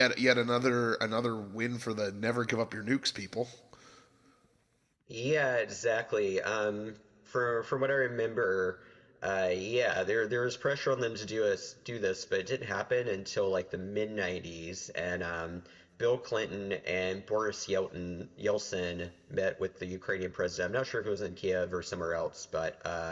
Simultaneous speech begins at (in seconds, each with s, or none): none